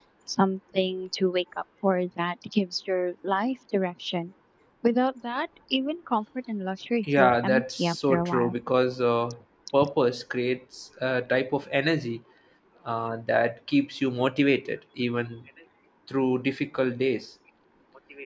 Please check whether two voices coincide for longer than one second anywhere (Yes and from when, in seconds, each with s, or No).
Yes, from 7.0 s